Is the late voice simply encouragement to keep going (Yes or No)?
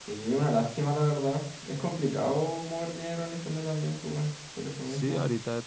No